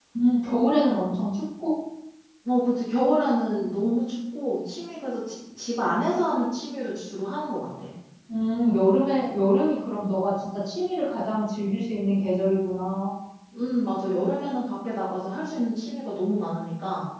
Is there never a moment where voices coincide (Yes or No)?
Yes